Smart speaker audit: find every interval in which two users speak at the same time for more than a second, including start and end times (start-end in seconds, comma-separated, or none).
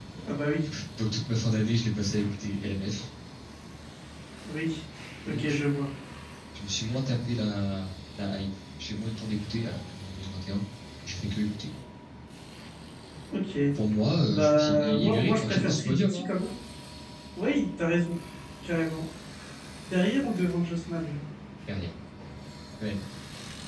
14.3-16.3